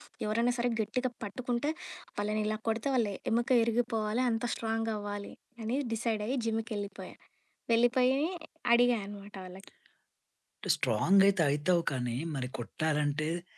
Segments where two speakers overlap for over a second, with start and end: none

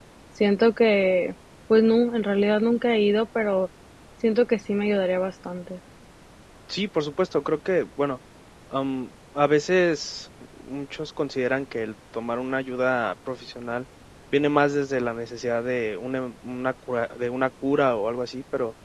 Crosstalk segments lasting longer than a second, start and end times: none

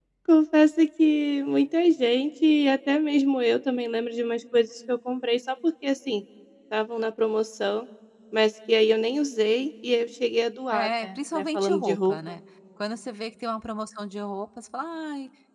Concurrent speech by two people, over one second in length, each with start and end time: 10.7-12.4

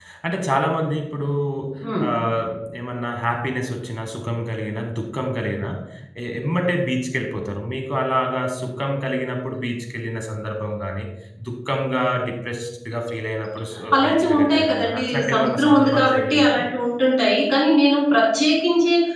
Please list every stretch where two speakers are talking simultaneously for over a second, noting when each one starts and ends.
14.0-16.6

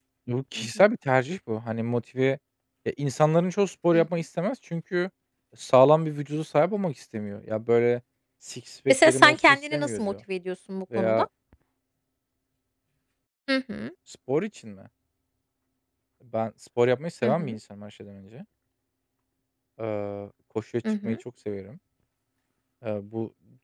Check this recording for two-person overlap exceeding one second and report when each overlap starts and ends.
8.9-10.1

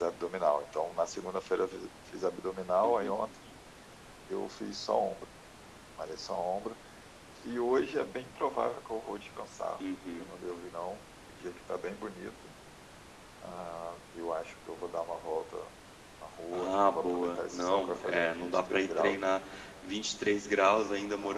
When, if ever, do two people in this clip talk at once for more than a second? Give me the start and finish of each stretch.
16.5-19.2

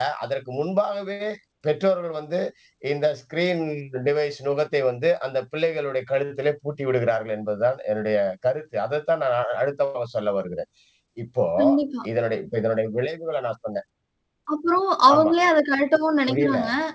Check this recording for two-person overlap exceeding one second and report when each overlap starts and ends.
none

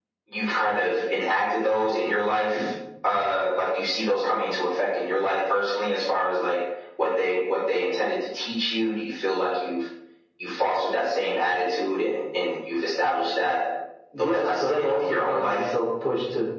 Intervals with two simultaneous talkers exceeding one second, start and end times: 14.2-15.7

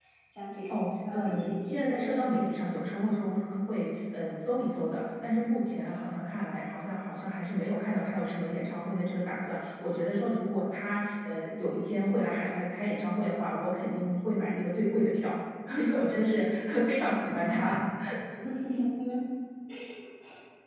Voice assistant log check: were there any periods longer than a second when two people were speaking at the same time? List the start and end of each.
0.7-2.2

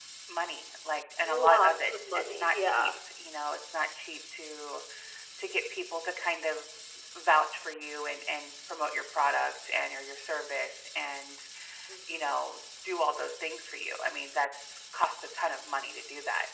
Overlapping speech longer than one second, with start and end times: 1.2-2.9

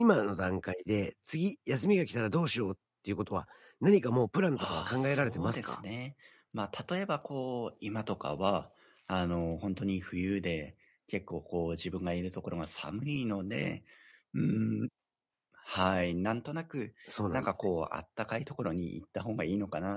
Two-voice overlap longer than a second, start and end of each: 4.6-5.8

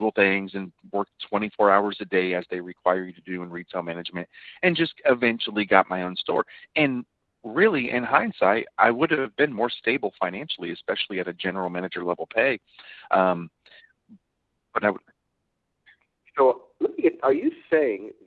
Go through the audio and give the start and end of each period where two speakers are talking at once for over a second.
none

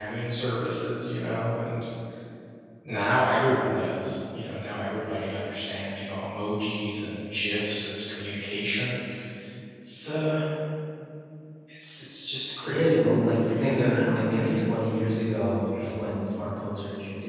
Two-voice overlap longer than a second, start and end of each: 12.6-14.6

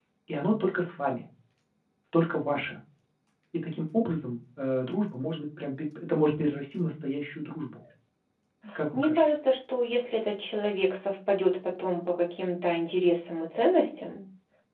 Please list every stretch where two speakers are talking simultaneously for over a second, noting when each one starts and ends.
none

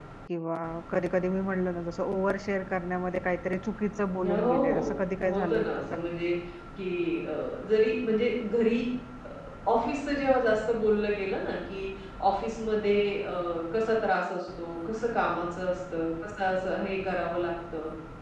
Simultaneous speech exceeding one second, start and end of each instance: 4.2-6.0

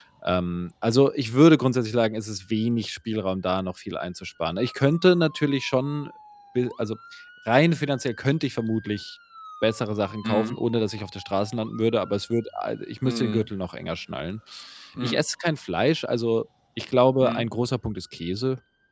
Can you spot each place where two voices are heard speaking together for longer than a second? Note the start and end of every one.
none

